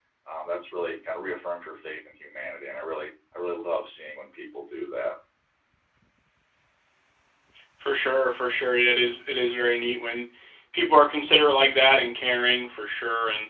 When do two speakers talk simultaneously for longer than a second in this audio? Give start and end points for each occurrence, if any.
none

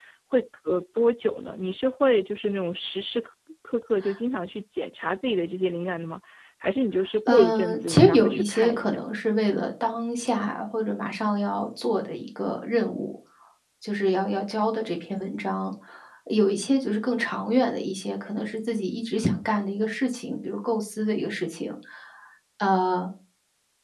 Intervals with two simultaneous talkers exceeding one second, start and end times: 7.3-9.1

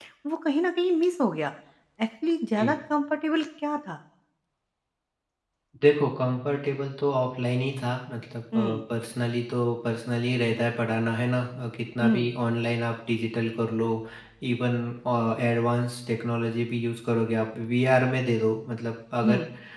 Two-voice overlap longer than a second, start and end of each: none

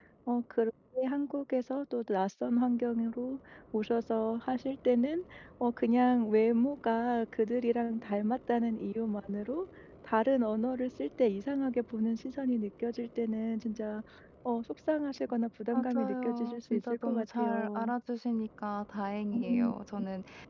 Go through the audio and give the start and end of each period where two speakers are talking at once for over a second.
15.7-17.9

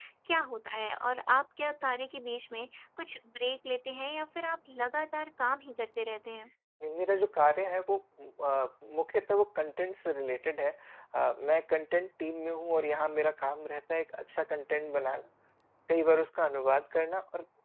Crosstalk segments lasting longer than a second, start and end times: none

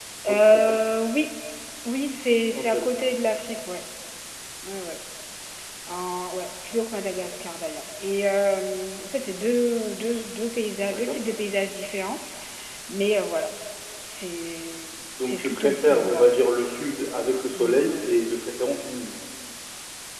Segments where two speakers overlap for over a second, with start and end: 15.2-16.4

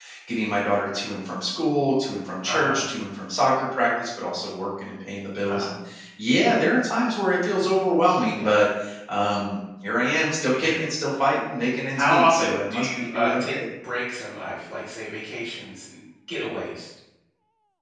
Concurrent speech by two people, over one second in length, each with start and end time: 11.9-13.5

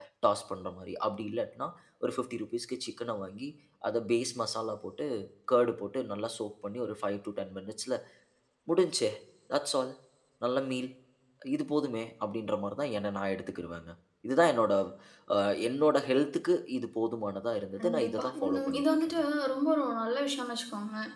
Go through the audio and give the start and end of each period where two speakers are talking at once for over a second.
17.8-19.1

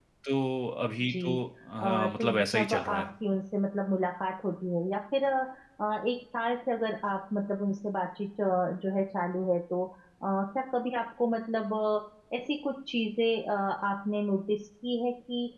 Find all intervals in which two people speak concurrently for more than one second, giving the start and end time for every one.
1.9-3.1

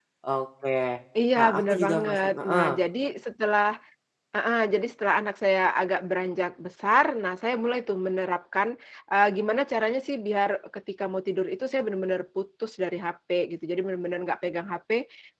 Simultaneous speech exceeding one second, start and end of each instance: 1.4-2.7

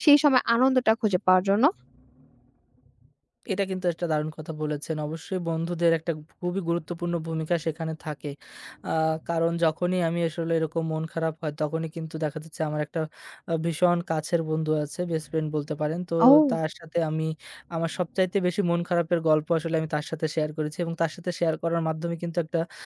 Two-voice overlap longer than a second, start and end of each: none

